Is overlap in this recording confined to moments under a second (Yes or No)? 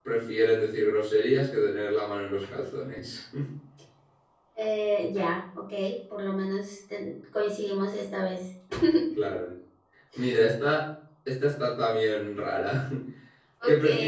Yes